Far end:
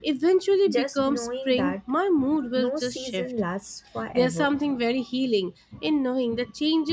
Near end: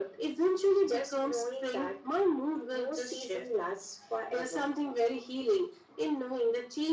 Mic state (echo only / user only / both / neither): echo only